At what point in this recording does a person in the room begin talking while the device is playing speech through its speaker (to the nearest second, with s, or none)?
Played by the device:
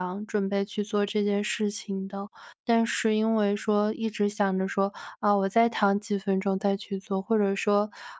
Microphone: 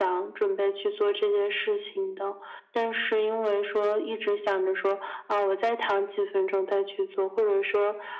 none